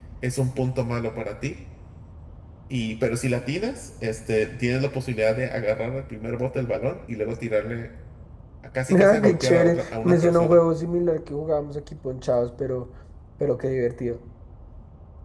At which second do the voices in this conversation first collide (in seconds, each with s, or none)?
8.9 s